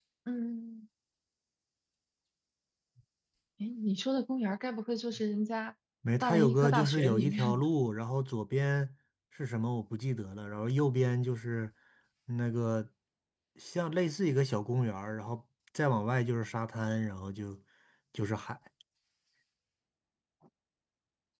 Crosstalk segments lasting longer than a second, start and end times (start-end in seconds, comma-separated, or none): 6.2-7.6